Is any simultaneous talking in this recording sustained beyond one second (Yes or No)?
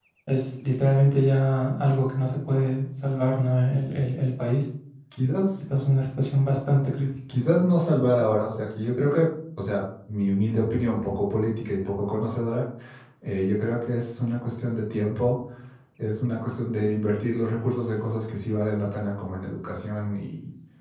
No